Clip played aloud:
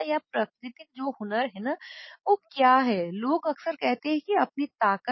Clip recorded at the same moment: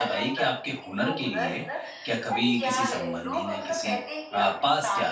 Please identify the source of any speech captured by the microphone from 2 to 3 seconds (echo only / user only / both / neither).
both